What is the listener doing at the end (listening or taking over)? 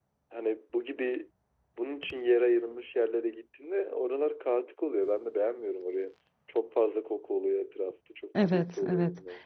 taking over